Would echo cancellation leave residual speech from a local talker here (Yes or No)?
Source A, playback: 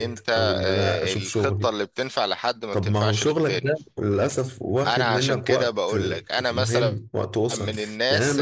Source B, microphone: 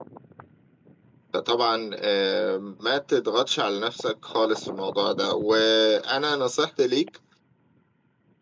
Yes